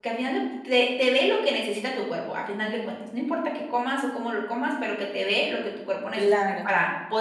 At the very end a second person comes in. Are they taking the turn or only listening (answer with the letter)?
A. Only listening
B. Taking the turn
A